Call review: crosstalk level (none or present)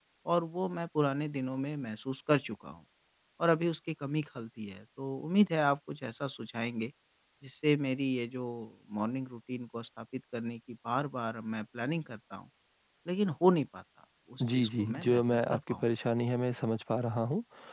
present